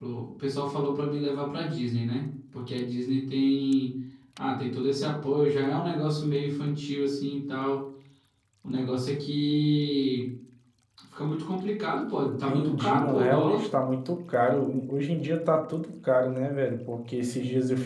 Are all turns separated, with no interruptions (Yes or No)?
No